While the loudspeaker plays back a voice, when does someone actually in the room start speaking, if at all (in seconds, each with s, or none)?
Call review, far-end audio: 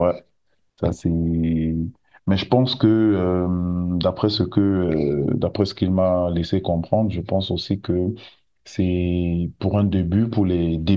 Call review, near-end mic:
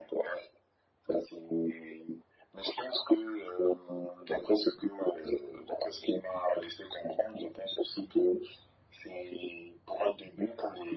none